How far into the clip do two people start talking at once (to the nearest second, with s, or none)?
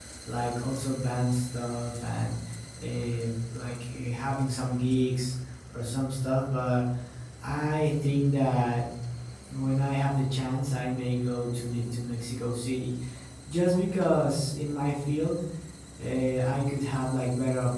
none